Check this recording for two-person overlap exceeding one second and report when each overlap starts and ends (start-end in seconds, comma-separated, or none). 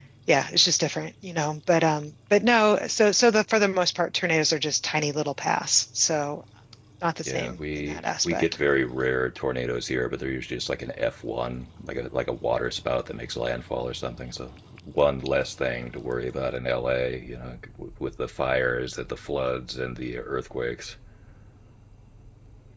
7.2-8.4